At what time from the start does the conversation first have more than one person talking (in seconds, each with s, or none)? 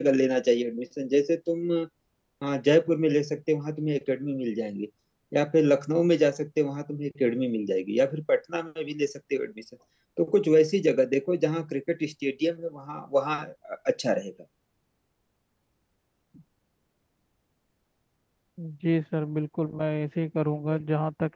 none